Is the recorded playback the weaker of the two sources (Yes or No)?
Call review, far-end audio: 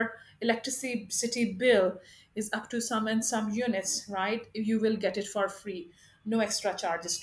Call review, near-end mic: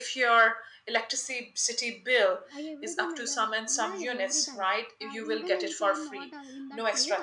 No